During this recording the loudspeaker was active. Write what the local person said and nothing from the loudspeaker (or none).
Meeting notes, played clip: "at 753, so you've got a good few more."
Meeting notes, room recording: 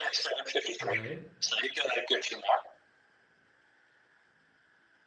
All right.